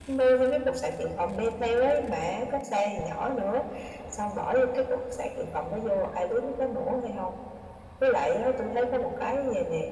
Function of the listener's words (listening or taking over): listening